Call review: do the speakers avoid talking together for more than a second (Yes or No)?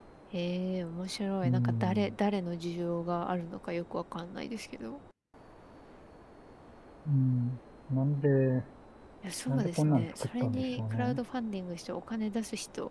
No